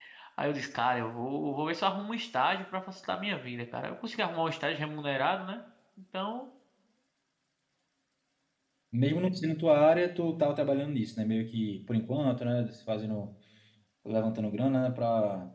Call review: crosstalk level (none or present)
none